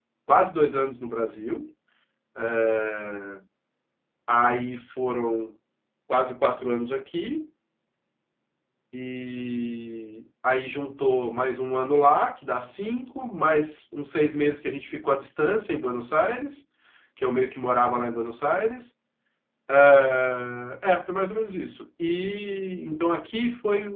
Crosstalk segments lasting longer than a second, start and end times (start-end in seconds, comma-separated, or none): none